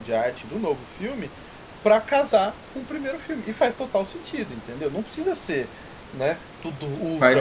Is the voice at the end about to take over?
Yes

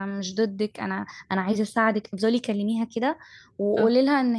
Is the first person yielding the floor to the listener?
No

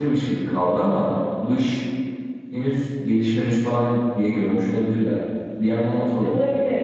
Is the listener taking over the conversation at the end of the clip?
Yes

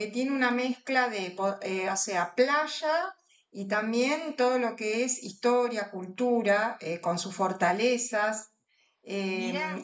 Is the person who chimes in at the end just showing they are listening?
Yes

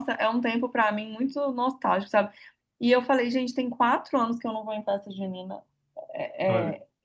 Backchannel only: Yes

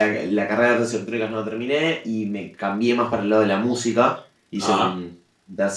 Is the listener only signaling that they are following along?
Yes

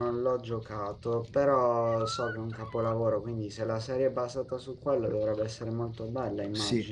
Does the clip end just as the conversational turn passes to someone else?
Yes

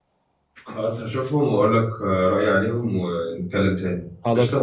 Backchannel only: No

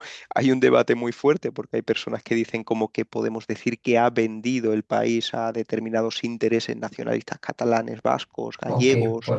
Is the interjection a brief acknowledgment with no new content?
No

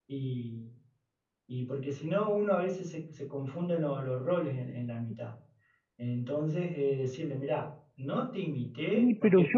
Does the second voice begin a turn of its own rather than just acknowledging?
Yes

